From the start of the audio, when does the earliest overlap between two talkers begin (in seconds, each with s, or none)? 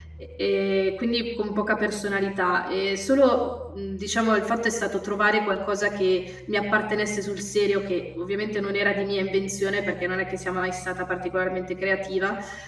none